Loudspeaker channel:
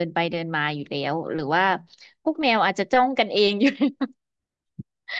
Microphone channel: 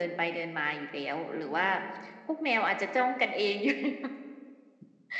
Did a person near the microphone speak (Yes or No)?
Yes